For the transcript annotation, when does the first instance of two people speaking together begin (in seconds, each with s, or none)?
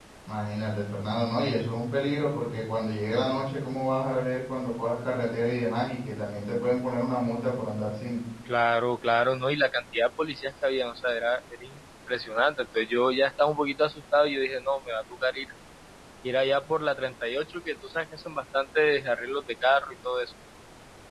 none